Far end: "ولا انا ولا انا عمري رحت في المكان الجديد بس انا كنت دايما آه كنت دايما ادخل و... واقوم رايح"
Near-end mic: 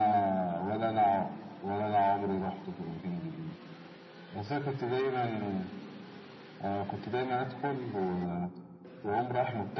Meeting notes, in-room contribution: none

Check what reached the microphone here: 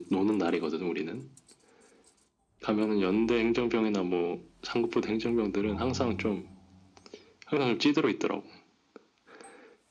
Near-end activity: present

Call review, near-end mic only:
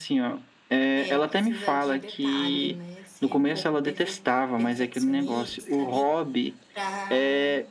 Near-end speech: present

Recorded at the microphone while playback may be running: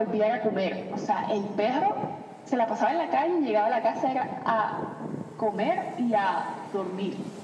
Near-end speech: none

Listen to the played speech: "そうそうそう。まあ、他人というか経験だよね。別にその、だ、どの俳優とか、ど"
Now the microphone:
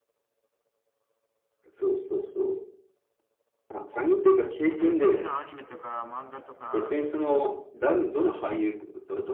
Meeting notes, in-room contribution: present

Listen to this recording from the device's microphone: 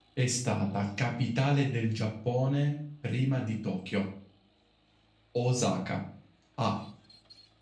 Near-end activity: present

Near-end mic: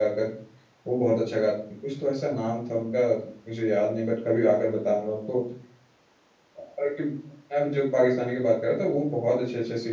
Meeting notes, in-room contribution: present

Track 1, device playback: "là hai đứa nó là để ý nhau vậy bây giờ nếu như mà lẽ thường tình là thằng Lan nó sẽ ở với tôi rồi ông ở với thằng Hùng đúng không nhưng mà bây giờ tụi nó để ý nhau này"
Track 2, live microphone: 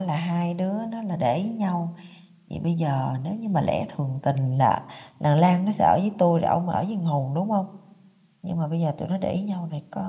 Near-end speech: none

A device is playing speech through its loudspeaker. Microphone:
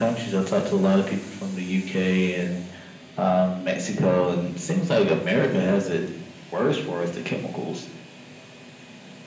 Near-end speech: none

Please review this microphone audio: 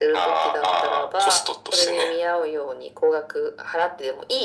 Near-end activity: none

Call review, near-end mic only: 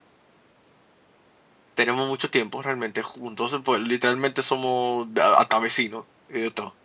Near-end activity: present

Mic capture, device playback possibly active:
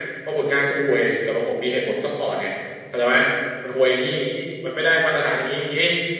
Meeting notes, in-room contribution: none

